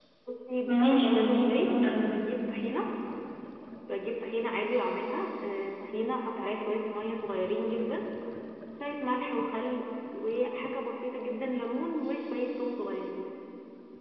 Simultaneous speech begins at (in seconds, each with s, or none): 0.6 s